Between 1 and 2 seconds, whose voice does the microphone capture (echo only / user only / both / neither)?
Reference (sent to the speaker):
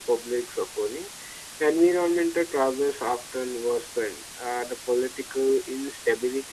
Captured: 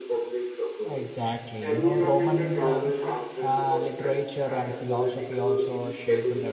both